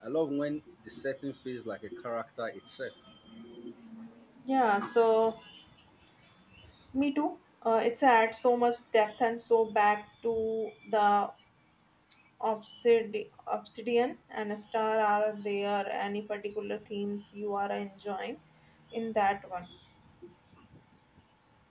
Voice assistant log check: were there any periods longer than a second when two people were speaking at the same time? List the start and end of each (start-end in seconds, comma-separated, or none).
none